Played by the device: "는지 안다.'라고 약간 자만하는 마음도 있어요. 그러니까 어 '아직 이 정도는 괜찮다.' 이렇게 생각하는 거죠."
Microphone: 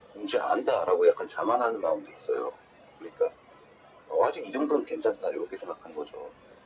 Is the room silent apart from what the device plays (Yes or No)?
Yes